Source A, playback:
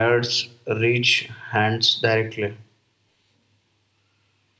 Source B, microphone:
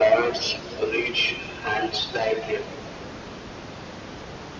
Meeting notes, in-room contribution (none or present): none